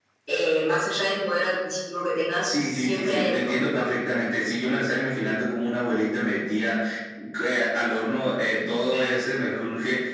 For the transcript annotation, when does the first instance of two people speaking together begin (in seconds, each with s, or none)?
2.5 s